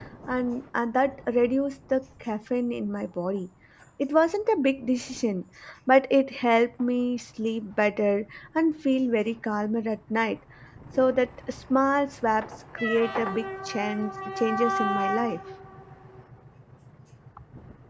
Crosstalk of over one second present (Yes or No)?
No